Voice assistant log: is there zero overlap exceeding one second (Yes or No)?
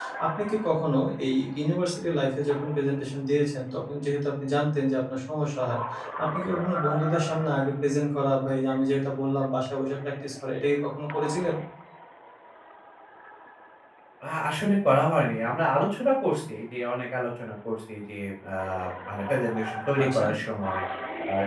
Yes